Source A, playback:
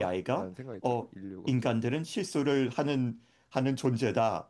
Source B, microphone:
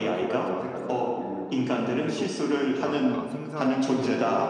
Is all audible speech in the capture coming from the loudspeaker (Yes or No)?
No